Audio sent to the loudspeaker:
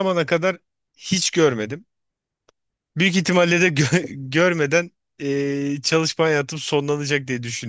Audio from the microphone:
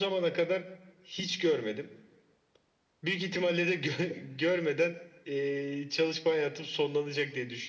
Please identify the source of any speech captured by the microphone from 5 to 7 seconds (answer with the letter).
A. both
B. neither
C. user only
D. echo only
D